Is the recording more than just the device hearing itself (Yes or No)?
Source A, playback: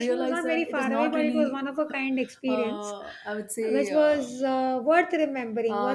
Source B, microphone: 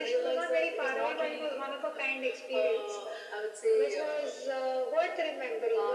No